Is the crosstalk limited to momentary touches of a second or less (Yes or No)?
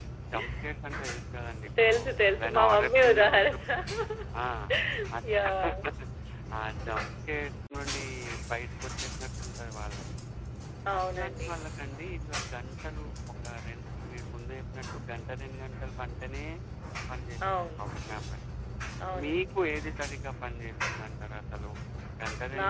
No